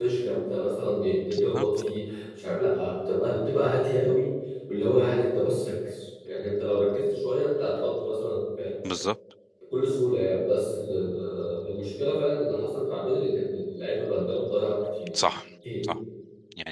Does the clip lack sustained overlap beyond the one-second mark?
Yes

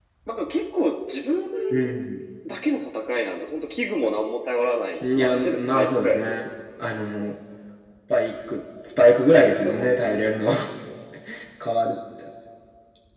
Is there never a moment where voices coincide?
No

